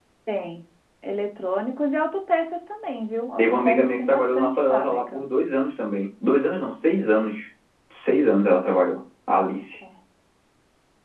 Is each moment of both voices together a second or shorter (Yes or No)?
No